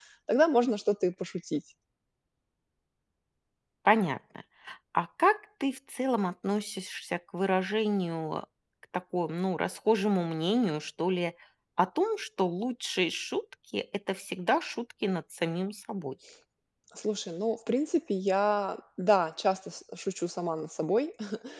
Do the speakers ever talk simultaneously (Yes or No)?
No